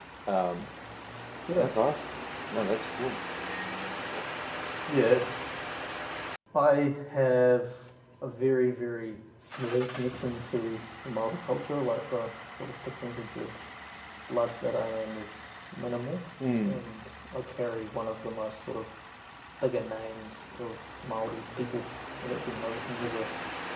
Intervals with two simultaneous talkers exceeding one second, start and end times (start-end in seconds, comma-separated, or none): none